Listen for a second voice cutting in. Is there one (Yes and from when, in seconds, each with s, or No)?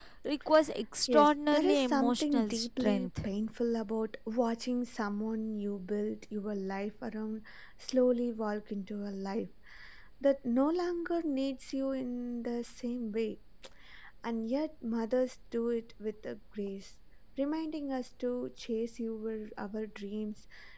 Yes, from 1.1 s